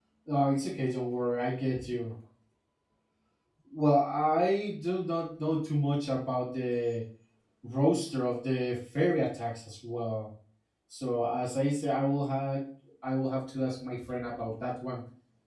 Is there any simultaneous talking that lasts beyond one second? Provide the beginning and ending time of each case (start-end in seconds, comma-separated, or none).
none